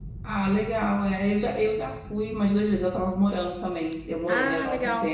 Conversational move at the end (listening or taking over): listening